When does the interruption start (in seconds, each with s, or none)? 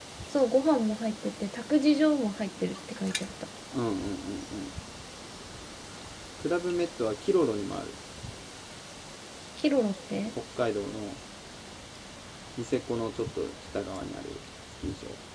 none